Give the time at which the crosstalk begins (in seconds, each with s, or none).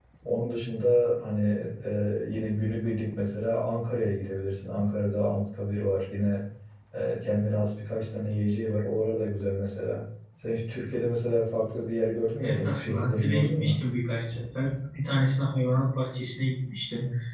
12.4 s